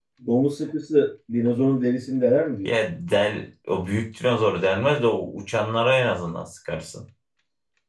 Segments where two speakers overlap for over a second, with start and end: none

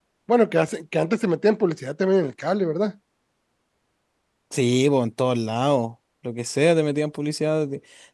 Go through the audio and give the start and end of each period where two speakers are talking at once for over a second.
none

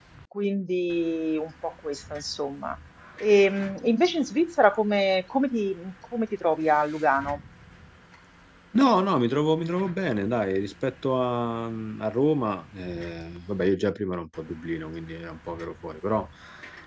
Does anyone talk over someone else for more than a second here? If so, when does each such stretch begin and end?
none

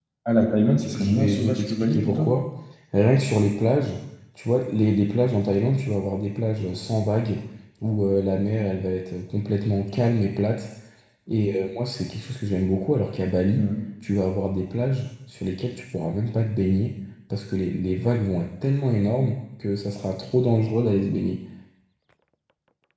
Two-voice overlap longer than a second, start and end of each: 0.9-2.3

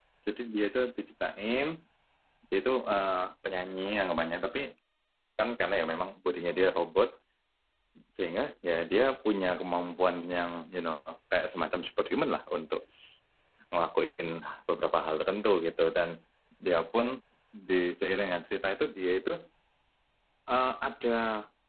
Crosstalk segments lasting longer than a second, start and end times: none

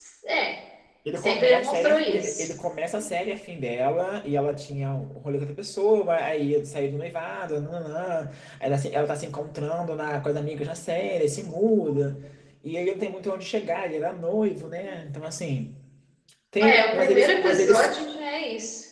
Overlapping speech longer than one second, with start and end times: 1.2-2.5, 16.6-17.9

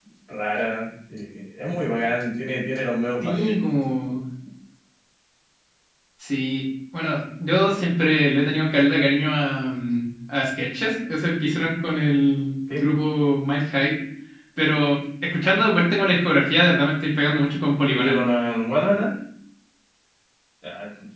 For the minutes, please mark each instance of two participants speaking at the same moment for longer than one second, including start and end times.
none

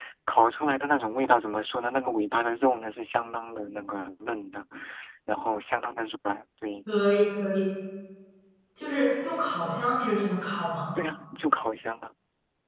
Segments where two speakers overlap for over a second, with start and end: none

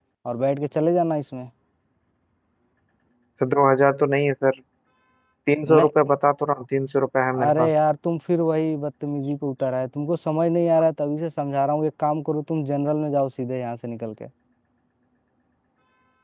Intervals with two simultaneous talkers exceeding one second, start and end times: none

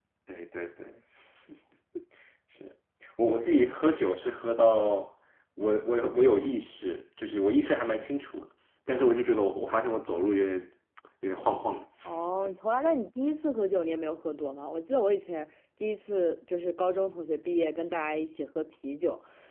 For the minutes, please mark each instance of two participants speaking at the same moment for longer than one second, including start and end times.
none

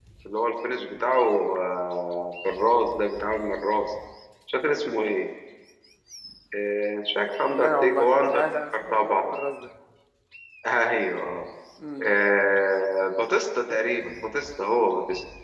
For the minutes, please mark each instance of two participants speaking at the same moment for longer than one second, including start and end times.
7.4-9.3

